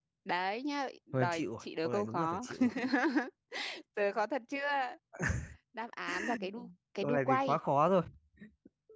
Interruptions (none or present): present